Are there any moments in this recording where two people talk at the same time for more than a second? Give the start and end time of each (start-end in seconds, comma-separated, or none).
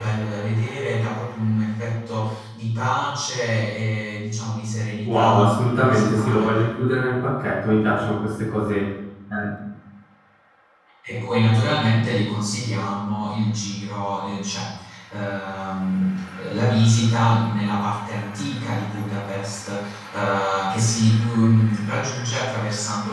5.0-6.6